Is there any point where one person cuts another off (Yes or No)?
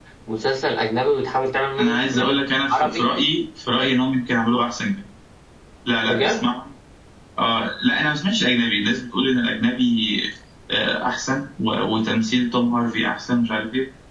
Yes